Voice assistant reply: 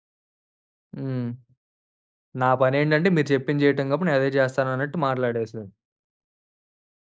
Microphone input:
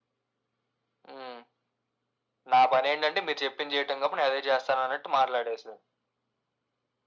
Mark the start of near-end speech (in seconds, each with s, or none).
none